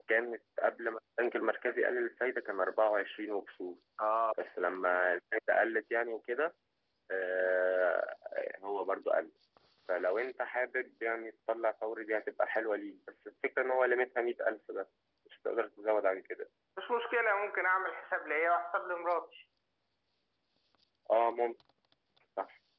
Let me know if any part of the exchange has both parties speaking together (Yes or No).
No